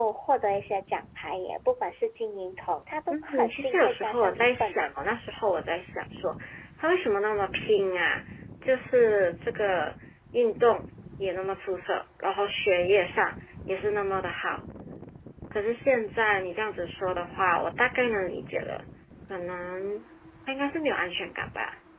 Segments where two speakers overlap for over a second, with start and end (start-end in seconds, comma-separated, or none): 3.2-5.1